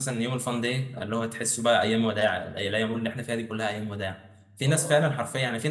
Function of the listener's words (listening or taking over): listening